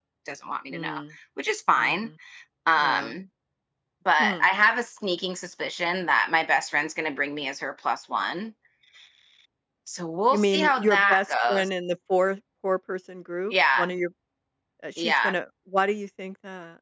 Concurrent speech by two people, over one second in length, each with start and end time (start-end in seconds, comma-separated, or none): 10.3-11.7